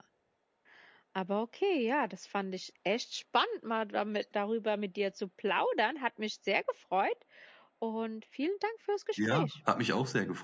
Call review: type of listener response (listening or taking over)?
taking over